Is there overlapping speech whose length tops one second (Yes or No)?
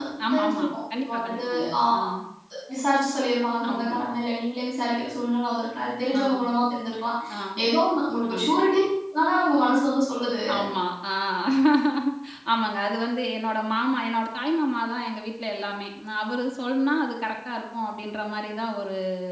Yes